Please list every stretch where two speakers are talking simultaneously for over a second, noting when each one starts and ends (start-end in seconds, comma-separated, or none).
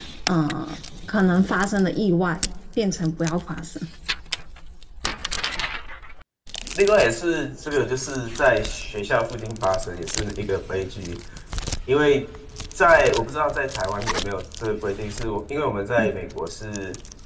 none